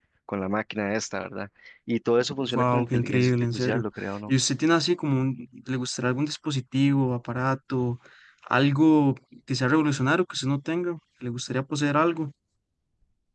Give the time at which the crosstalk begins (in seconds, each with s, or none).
2.5 s